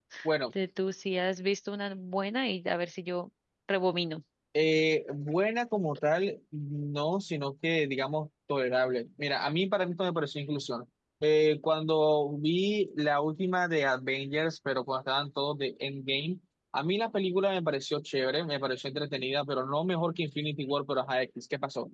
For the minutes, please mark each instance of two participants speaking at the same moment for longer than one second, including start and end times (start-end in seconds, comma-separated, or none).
none